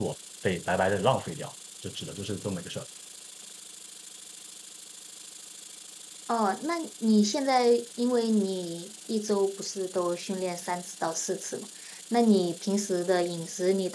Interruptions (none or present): none